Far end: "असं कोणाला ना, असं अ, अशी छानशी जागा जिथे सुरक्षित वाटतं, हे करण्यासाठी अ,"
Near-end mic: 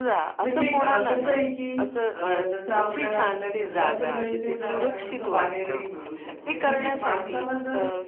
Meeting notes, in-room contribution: present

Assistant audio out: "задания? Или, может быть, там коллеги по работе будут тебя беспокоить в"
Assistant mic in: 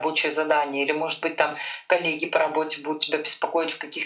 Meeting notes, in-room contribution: none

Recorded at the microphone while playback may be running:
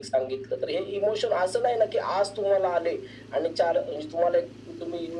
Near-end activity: none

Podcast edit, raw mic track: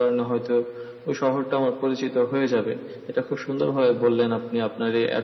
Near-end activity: none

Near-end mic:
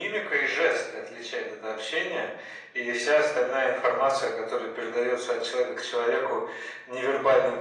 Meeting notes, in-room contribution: none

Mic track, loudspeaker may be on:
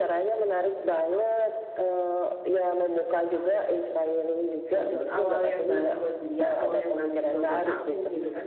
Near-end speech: present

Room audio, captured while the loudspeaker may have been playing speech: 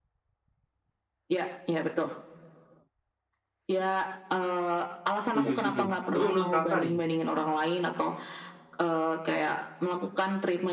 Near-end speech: present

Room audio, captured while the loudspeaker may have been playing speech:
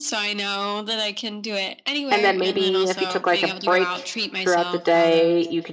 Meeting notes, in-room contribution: present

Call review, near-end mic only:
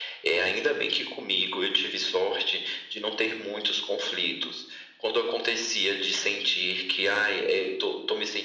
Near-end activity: none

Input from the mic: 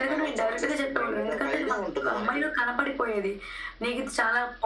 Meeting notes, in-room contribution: none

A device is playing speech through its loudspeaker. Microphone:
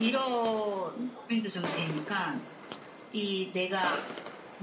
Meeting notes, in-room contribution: none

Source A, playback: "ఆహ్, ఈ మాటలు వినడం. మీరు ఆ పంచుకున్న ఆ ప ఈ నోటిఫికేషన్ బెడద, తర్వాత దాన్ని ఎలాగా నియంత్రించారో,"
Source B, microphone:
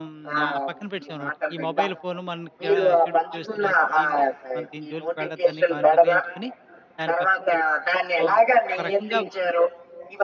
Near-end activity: present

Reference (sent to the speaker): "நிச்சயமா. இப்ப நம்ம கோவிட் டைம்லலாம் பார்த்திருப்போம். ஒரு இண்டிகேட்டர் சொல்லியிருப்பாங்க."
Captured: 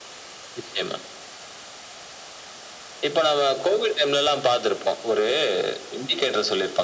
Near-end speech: none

